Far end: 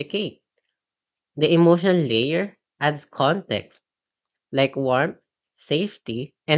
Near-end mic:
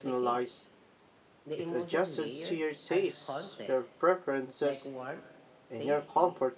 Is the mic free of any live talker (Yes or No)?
No